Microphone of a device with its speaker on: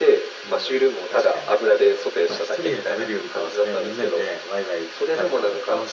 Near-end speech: present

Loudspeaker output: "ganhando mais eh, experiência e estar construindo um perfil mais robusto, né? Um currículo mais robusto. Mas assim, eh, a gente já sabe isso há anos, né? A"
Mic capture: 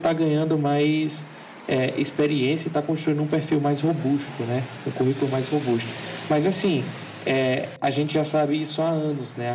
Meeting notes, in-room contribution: none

